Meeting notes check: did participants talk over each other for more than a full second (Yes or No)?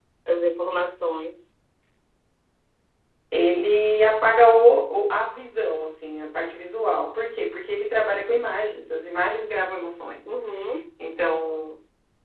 No